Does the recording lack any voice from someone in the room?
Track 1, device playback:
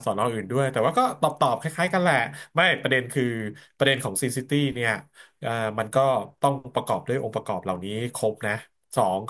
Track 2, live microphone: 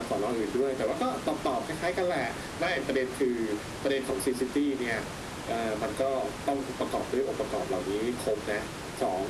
Yes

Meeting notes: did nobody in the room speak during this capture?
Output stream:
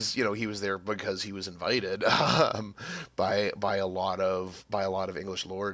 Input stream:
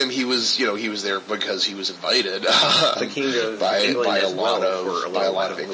No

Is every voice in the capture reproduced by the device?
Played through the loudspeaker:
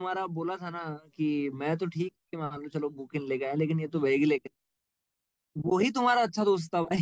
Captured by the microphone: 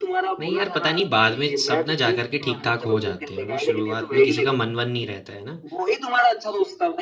No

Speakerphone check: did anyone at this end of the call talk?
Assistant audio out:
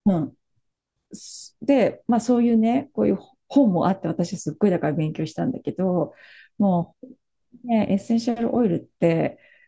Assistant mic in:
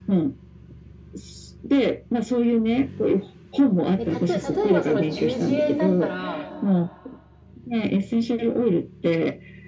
Yes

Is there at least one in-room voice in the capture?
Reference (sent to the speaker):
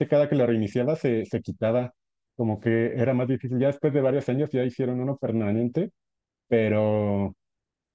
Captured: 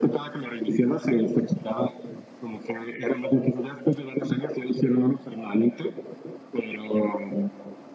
No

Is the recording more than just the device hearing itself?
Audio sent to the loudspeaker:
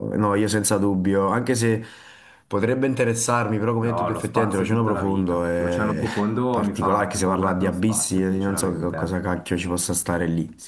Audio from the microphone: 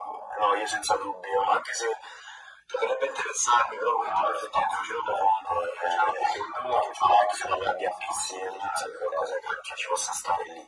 No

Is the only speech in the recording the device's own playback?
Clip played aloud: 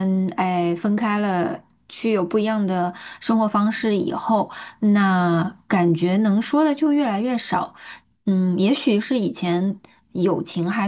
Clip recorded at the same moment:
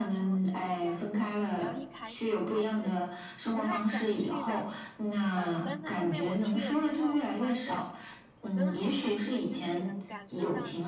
No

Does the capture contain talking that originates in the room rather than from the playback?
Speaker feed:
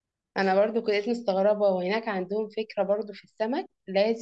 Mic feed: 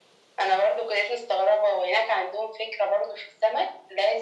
No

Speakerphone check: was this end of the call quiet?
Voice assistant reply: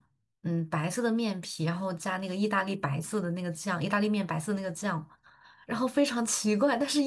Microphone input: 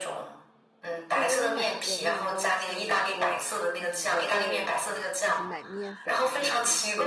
No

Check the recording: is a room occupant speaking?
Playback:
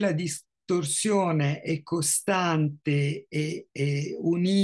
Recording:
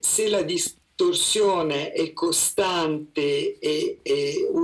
No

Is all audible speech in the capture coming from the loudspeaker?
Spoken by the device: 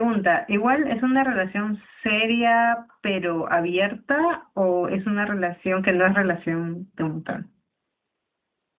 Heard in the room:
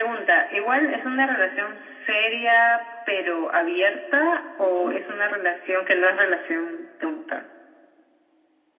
No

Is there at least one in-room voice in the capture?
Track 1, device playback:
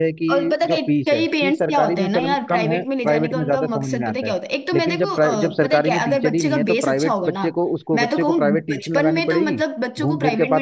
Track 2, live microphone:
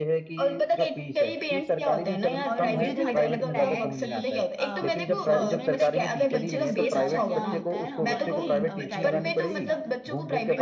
Yes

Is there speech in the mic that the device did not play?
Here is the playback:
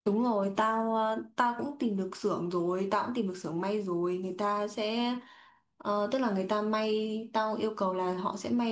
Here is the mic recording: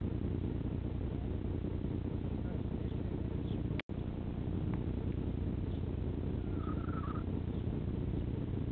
No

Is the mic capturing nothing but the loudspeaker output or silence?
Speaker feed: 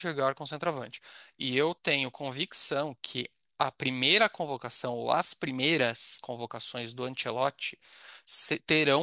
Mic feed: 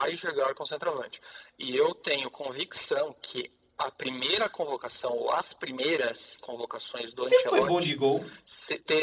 No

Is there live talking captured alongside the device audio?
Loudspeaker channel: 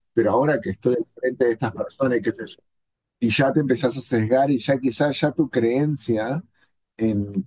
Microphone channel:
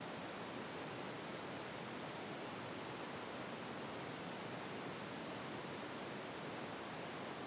No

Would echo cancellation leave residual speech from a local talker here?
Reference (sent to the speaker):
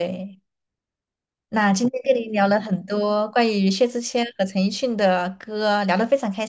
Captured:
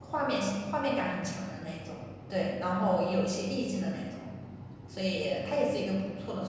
Yes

